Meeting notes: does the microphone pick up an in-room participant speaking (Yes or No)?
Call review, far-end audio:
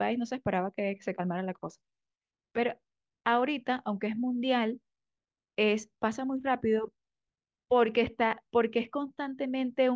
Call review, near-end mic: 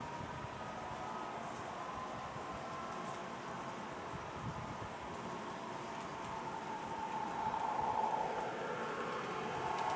No